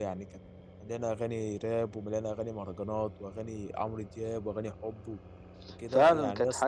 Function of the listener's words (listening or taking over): taking over